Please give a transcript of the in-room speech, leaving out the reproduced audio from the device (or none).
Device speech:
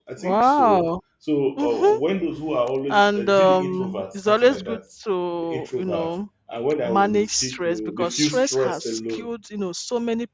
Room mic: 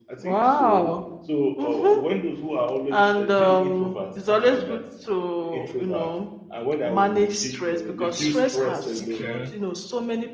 okay.